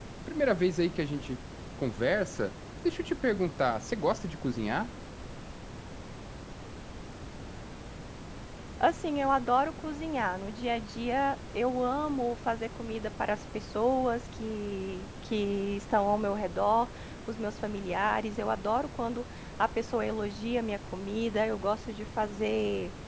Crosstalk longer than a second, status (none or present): none